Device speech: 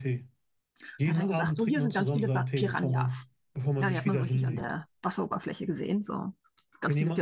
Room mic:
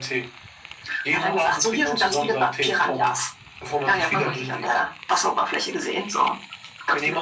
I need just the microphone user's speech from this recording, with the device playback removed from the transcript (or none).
Ja,